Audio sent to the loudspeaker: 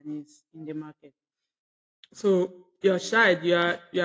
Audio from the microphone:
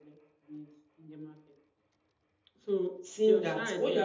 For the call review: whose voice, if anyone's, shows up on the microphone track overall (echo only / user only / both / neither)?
both